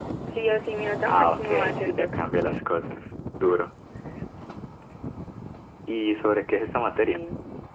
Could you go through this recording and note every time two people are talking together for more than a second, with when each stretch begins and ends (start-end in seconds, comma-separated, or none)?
1.1-2.5